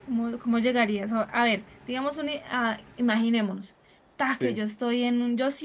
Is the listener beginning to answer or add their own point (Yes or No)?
No